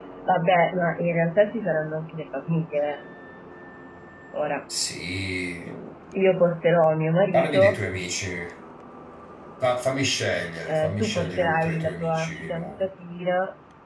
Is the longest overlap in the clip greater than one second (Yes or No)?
Yes